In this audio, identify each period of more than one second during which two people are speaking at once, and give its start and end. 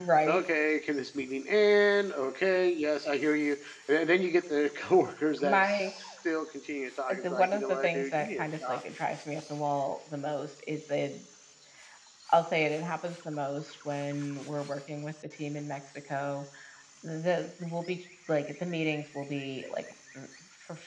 7.1-8.8

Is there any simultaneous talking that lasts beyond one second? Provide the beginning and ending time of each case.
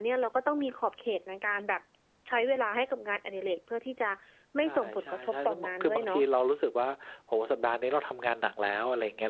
4.6-6.2

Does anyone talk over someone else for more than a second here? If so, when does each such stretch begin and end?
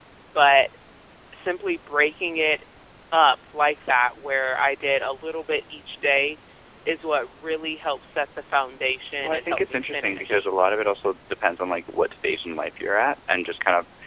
9.2-10.5

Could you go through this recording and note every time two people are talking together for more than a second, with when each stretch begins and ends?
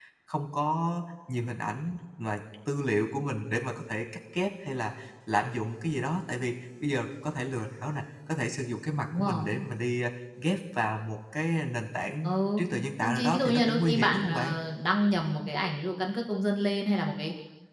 13.0-14.5

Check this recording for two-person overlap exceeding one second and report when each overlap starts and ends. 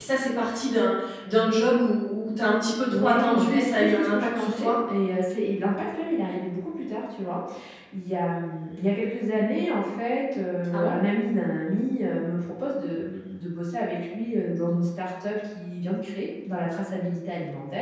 2.9-4.7

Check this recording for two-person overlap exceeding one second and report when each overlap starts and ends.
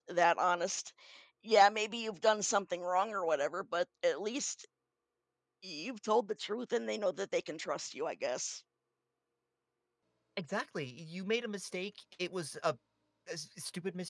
none

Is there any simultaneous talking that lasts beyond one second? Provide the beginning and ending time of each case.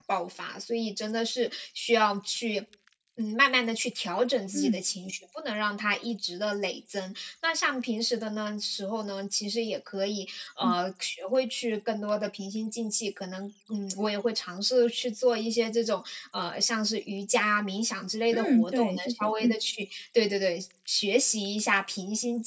18.3-19.5

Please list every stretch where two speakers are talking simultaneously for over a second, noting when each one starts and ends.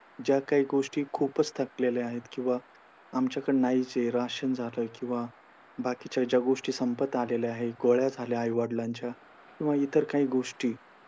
none

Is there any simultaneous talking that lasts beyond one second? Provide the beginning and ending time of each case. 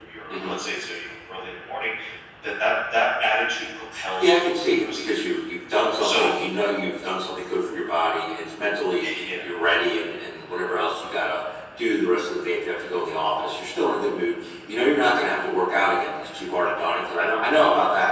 4.2-5.4

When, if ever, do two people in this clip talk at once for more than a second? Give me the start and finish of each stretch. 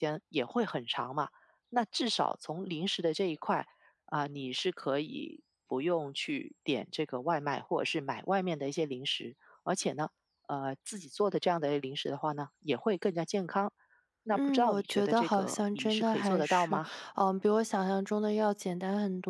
14.3-16.8

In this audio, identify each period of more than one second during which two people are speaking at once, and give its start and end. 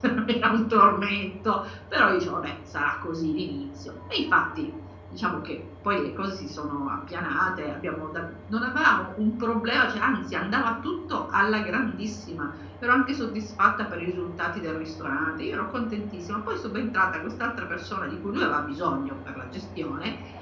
none

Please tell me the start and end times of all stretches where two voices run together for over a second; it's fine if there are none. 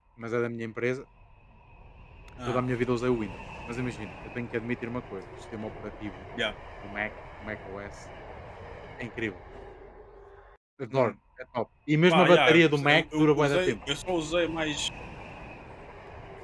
12.1-13.8

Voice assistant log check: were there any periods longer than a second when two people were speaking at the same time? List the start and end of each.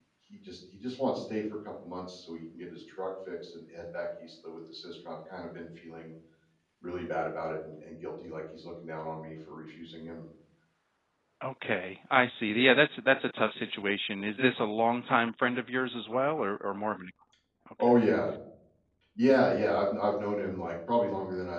none

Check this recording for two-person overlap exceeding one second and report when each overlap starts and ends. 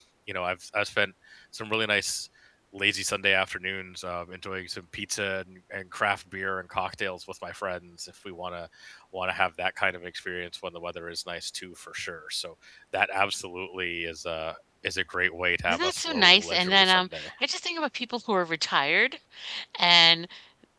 15.7-17.3

